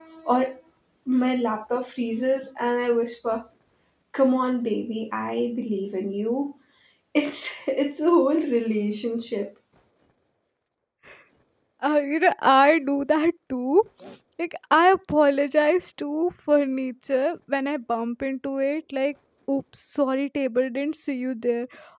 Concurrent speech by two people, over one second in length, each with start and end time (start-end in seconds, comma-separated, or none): none